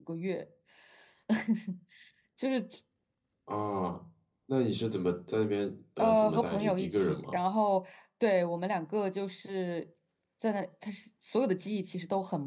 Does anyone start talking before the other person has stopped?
Yes, from 6.0 s

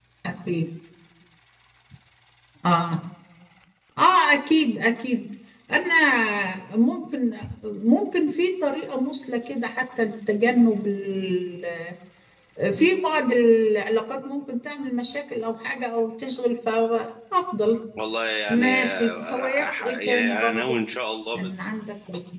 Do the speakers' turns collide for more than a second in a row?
Yes, from 18.5 s

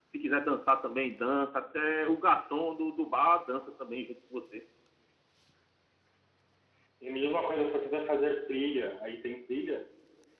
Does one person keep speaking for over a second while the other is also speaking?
No

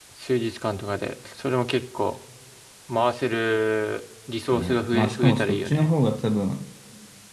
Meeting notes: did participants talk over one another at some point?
Yes, from 4.5 s

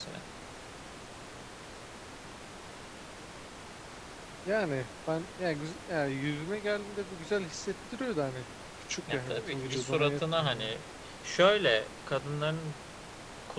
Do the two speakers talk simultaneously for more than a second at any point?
Yes, from 9.1 s

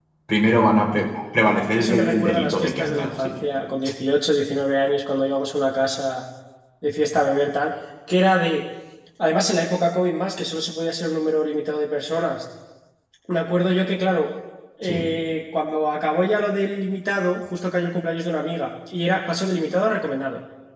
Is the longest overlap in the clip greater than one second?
Yes, from 1.8 s

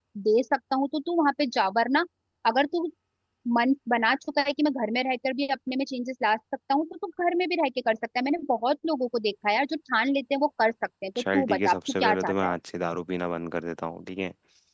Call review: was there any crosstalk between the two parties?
Yes, from 11.2 s

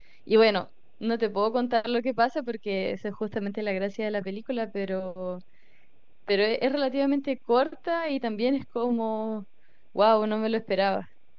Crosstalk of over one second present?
No

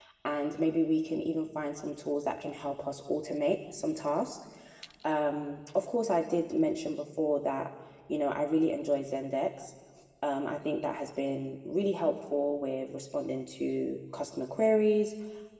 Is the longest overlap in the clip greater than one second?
No

